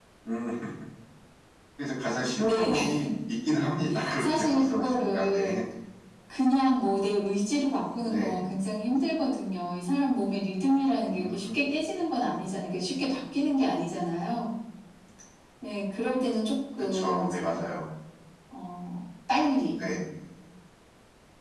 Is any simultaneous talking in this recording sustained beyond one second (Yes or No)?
Yes